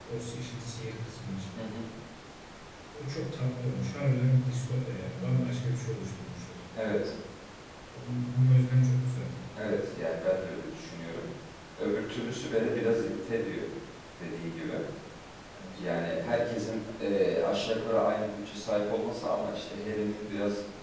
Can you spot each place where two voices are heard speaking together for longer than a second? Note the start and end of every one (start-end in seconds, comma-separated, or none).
none